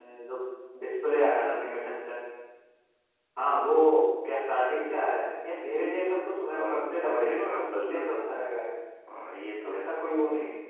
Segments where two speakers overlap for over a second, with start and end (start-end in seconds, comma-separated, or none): 6.5-8.0